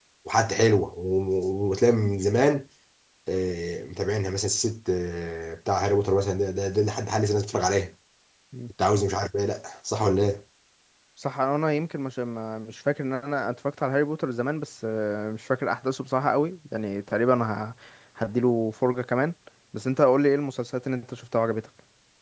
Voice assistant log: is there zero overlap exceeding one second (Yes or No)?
Yes